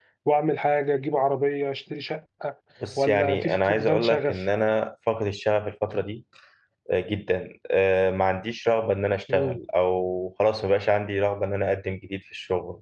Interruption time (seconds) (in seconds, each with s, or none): 3.0 s